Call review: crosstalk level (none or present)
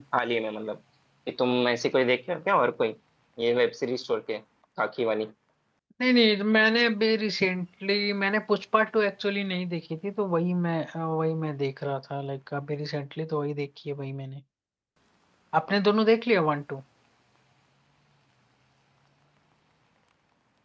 none